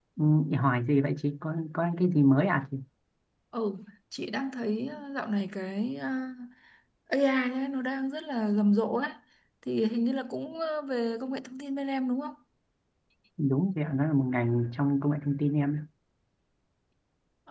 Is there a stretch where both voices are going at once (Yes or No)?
No